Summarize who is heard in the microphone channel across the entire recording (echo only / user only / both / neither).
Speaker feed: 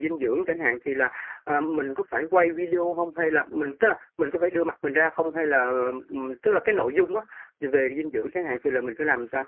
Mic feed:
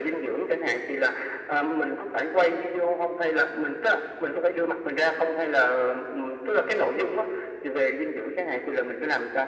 echo only